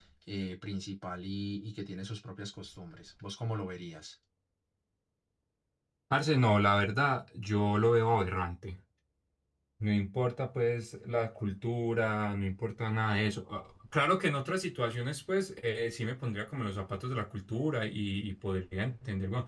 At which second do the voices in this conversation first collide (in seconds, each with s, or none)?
none